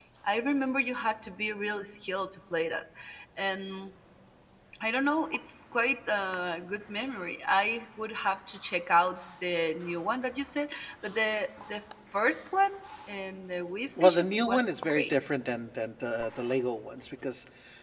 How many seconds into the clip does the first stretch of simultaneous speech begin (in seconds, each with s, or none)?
14.0 s